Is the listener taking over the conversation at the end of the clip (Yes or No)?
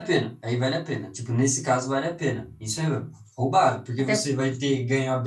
No